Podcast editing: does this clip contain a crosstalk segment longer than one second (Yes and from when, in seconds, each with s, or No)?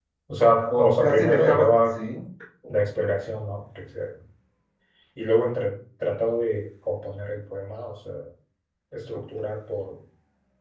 Yes, from 0.7 s